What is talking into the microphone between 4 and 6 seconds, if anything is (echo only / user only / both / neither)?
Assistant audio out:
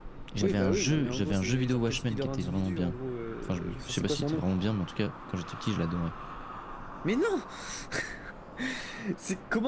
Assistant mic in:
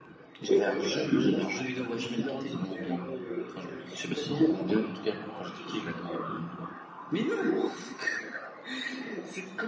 echo only